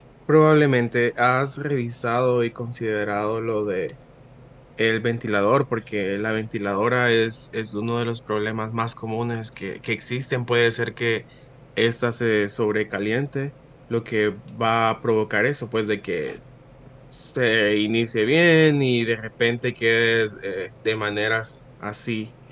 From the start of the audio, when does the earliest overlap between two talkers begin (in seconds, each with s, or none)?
none